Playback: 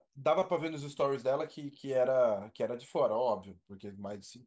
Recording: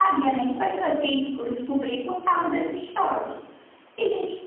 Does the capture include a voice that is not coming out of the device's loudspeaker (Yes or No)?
Yes